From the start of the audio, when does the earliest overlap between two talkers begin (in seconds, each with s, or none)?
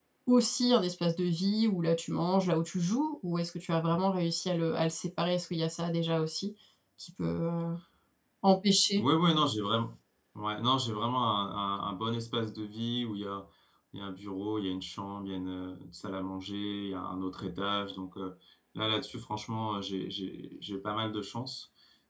none